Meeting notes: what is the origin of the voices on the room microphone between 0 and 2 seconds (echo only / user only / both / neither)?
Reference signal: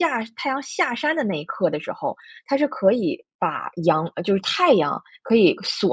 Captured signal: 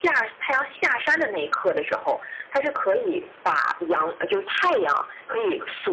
echo only